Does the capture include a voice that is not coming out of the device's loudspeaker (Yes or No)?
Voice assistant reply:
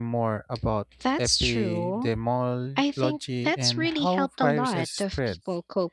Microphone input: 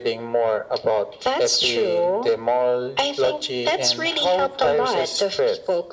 No